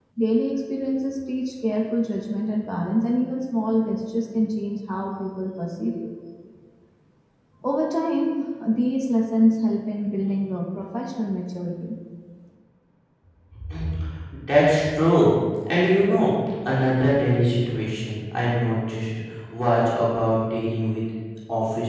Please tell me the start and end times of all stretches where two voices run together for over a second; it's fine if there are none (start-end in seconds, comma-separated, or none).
none